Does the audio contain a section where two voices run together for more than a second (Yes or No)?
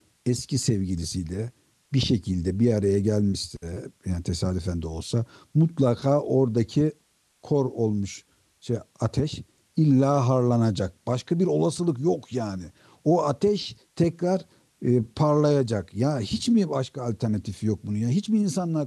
No